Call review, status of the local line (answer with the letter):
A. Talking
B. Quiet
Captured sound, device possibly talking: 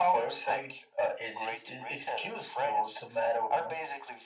B